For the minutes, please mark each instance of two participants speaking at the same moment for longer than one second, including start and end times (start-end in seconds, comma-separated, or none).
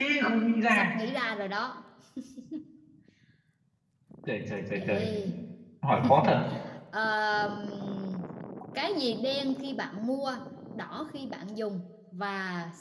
none